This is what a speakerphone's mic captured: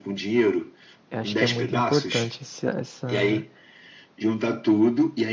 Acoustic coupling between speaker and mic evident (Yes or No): Yes